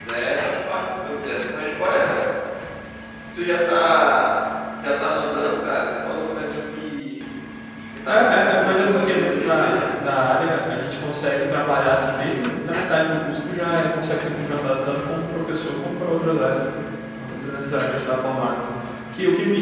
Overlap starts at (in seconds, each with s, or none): 8.1 s